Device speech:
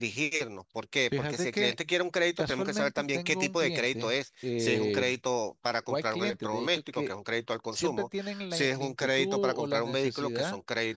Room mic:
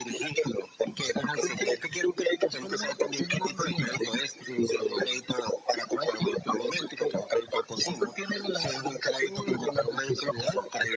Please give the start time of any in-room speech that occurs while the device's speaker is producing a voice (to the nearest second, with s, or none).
none